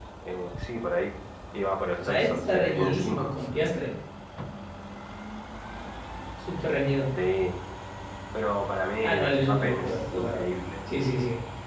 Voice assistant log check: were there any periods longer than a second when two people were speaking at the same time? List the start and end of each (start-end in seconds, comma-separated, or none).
2.0-3.4, 9.0-10.4